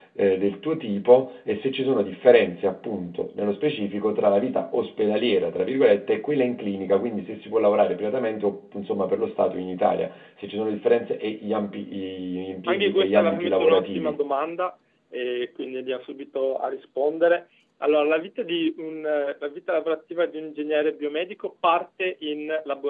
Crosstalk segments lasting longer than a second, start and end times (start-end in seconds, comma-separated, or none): 12.7-14.2